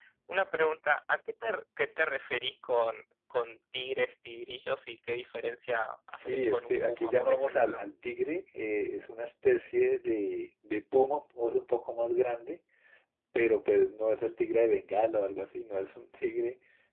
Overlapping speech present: Yes, from 6.1 s

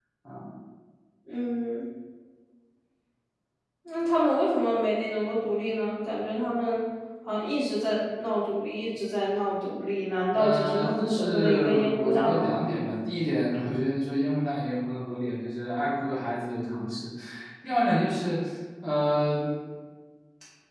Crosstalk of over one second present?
Yes, from 10.3 s

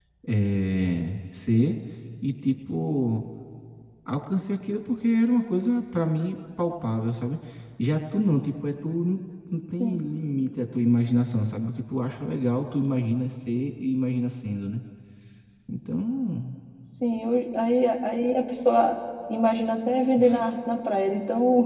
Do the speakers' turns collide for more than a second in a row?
No

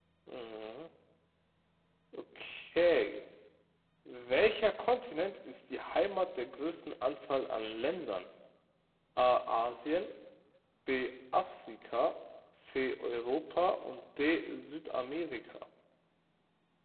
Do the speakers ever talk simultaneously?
No

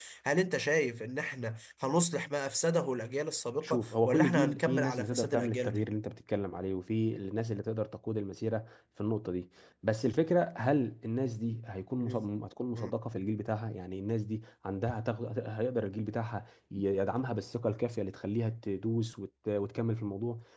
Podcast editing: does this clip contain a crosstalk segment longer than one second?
Yes, from 3.6 s

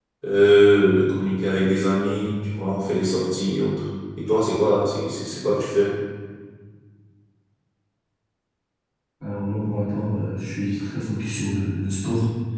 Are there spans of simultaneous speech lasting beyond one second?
No

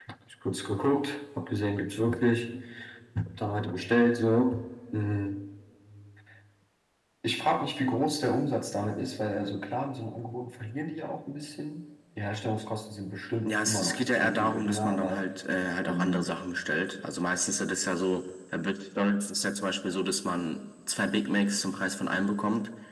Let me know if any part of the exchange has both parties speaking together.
Yes, from 13.5 s

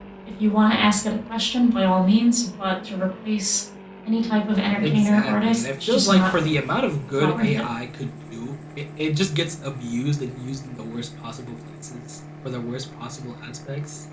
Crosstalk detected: Yes, from 4.8 s

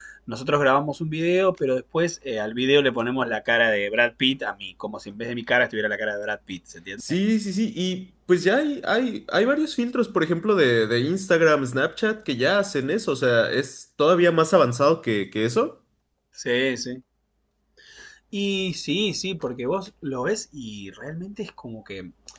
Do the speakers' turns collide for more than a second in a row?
No

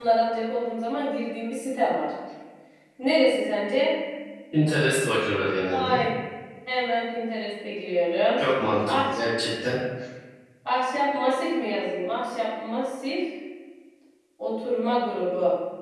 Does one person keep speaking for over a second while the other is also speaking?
No

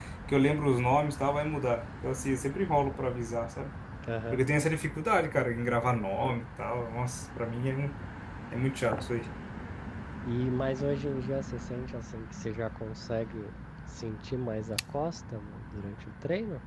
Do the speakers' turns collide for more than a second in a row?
No

